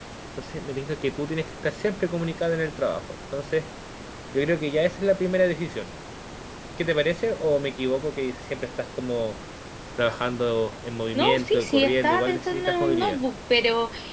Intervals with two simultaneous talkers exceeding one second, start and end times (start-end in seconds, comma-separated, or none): 11.1-13.2